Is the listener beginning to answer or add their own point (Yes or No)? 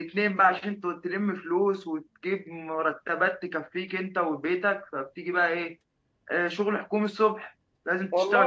No